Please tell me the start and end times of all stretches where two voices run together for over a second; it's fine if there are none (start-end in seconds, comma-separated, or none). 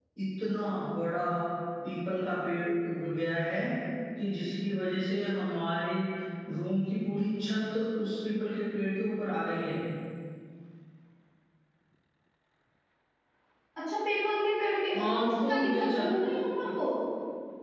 14.9-16.1